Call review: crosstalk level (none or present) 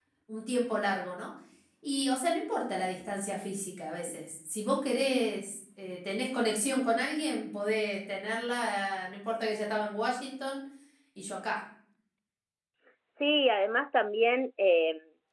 none